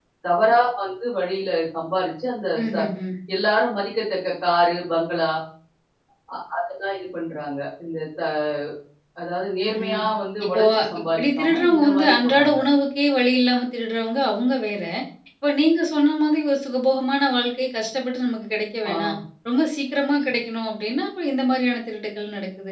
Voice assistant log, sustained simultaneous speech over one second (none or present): present